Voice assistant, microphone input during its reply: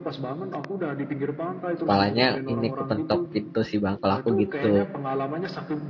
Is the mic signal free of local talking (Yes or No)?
No